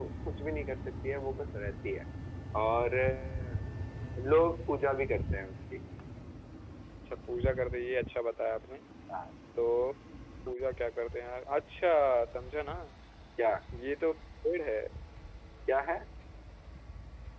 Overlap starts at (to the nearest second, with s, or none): none